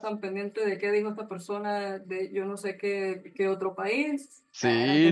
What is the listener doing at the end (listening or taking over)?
taking over